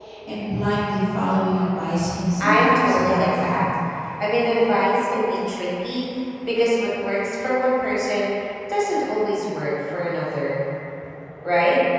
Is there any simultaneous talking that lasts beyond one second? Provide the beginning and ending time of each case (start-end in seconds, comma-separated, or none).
2.4-3.7